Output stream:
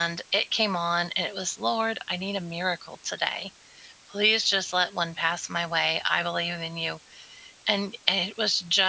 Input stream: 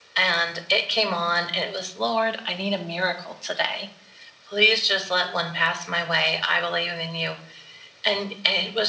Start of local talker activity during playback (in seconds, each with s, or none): none